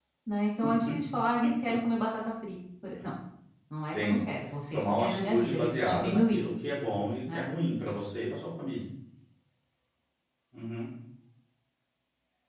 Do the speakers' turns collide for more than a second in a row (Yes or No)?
Yes